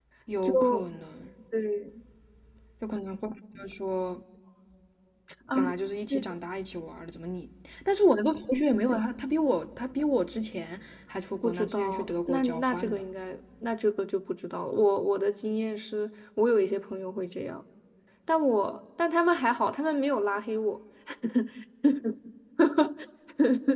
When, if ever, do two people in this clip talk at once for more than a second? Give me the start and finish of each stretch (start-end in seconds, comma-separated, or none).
11.4-13.0